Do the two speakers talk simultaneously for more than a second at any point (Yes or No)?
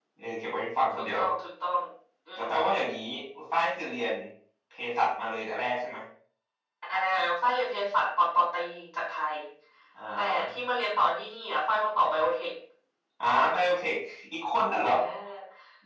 No